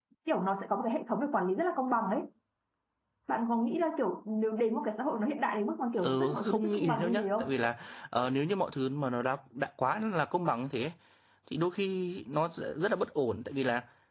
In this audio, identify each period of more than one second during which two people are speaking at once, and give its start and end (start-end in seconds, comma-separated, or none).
6.0-7.5